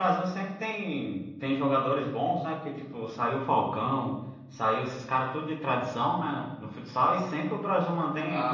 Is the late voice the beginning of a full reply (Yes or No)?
Yes